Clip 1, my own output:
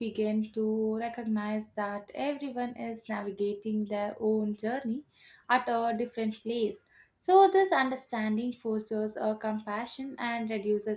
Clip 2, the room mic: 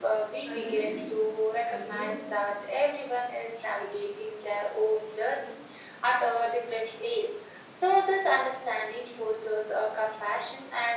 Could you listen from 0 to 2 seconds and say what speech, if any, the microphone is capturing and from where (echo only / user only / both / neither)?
both